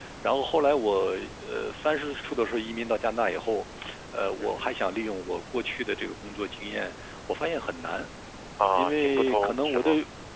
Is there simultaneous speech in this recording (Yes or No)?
Yes